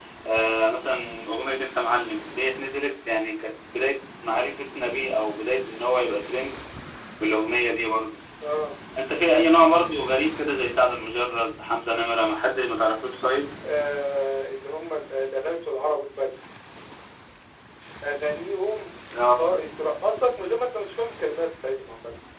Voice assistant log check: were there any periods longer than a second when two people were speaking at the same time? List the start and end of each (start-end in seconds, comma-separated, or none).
none